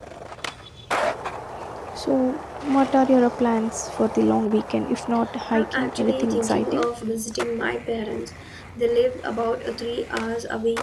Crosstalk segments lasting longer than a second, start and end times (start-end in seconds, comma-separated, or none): 5.5-6.9